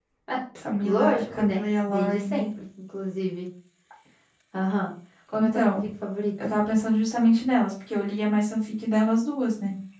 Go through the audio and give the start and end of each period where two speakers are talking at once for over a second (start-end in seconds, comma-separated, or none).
0.8-2.5